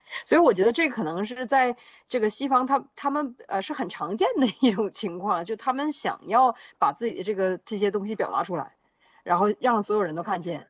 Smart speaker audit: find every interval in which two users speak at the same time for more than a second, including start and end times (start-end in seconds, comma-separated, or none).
none